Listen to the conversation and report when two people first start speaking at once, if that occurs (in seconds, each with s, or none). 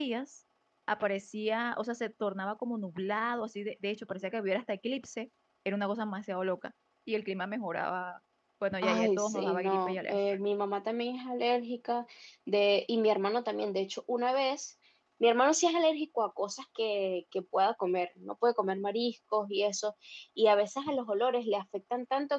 8.8 s